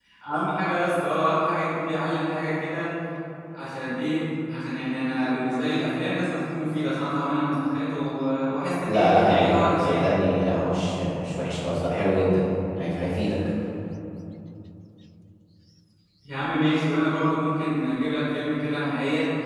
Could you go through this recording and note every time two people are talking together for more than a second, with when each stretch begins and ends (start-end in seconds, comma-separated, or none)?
8.9-10.1